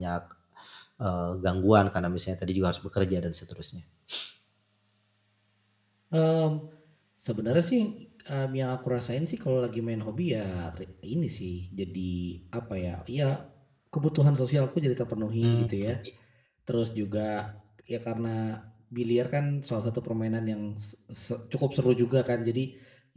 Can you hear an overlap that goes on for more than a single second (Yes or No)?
No